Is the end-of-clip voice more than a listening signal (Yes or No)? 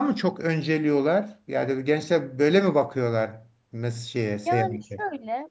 Yes